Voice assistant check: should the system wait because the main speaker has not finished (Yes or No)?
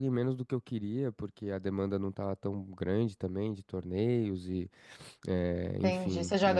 No